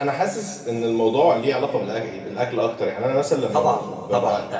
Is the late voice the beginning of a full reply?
Yes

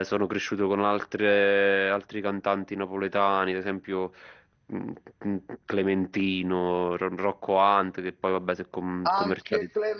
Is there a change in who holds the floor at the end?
Yes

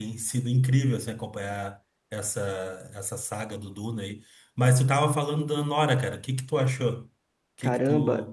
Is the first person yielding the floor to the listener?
Yes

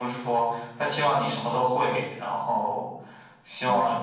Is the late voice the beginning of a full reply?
No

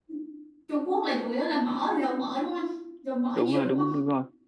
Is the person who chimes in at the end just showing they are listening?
No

